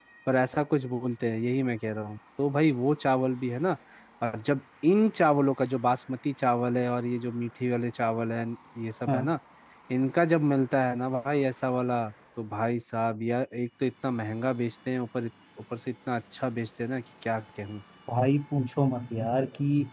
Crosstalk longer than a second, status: none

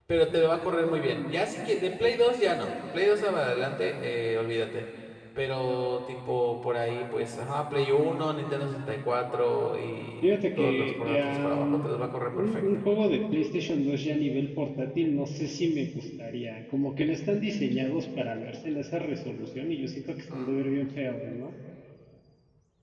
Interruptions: present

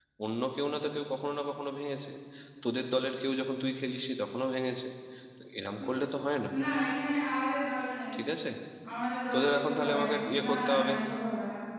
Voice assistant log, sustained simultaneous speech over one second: present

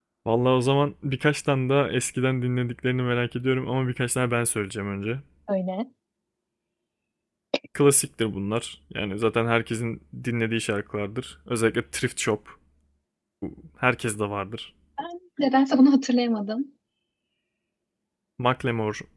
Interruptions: none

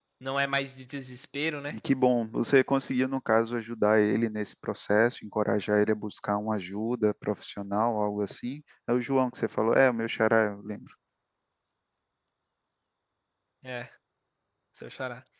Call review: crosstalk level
none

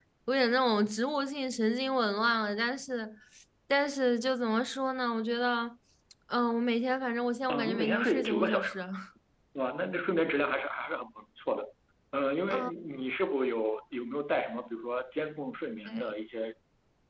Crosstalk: present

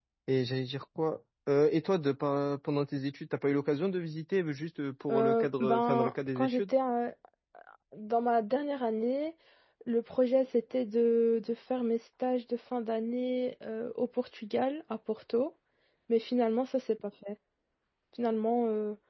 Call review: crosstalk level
present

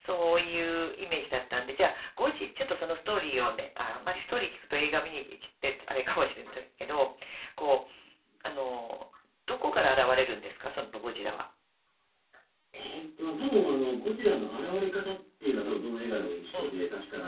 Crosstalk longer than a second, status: none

